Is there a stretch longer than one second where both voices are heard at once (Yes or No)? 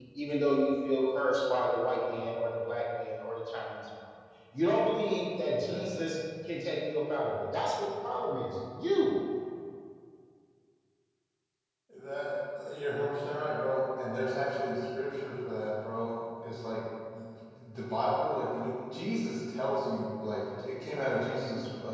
No